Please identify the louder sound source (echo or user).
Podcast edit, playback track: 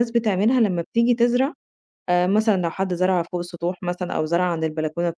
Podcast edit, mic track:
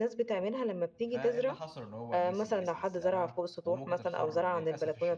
echo